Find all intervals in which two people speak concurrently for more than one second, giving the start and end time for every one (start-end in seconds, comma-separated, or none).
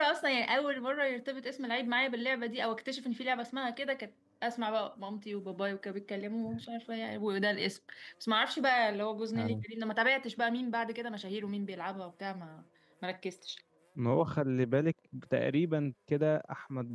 none